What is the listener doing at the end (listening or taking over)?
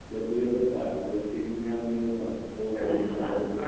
taking over